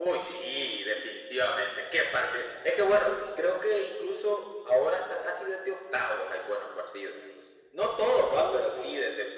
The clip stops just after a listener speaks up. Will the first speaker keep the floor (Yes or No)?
Yes